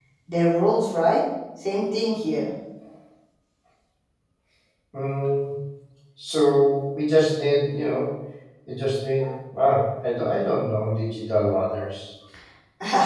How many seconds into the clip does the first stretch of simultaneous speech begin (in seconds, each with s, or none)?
none